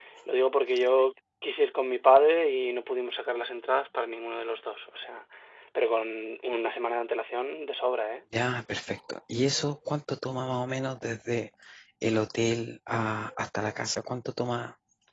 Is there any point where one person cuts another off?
No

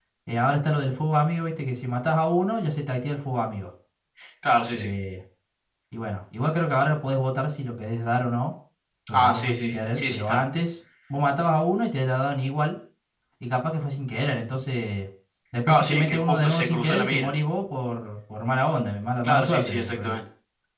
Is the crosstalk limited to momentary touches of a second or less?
No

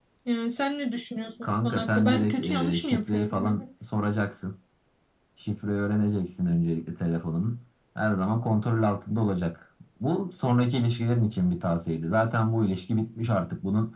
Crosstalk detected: Yes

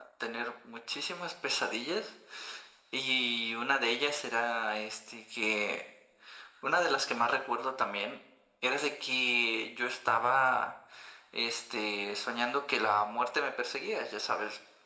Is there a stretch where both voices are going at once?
No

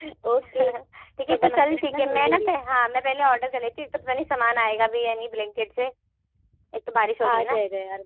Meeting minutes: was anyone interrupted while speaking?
Yes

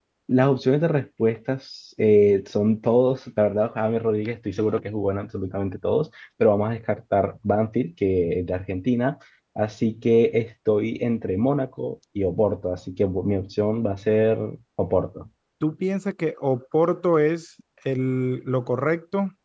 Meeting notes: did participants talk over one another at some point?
No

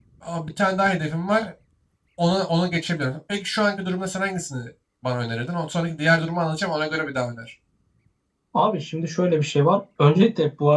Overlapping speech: No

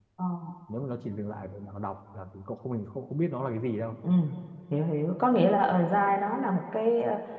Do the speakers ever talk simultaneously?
No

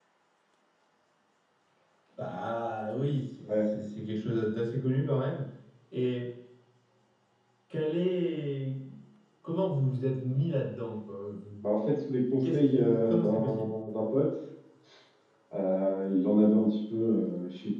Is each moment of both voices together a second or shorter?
No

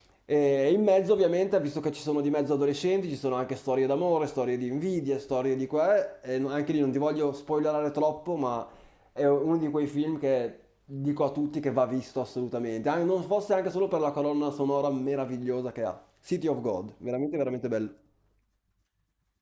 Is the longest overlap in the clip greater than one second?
No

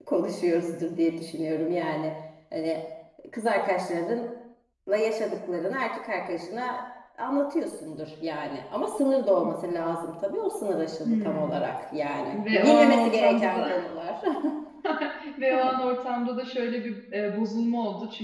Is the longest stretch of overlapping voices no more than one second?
No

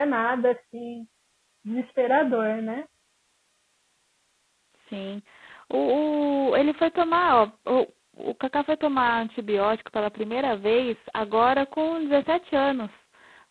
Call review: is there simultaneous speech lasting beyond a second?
No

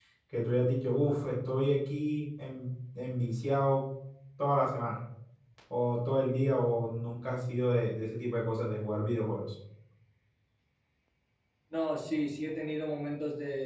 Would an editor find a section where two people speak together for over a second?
No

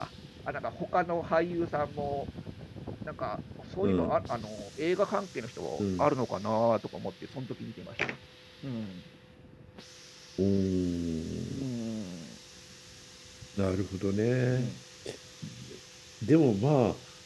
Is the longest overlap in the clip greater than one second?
No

